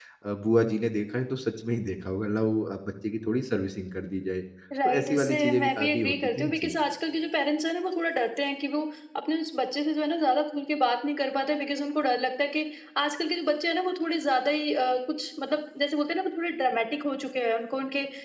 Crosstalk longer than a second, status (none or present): present